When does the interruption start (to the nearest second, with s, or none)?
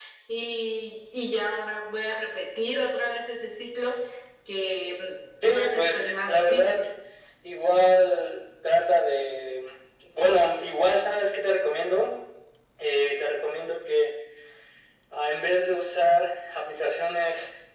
5 s